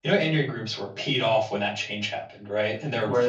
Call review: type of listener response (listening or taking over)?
listening